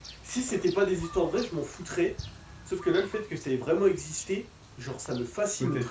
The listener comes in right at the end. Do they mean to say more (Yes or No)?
Yes